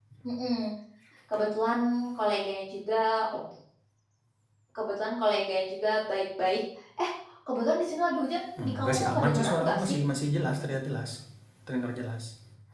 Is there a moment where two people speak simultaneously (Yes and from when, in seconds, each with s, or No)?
Yes, from 8.6 s